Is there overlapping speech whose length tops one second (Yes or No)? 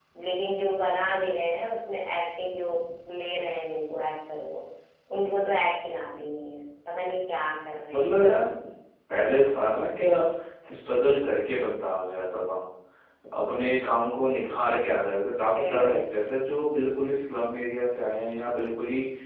No